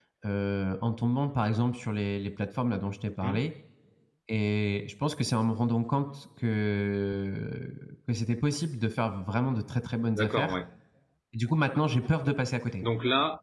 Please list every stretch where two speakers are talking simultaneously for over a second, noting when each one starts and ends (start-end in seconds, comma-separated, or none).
none